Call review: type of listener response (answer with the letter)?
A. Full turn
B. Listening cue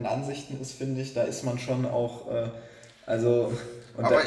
A